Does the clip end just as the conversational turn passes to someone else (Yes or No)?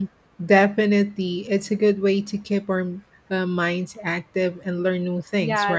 Yes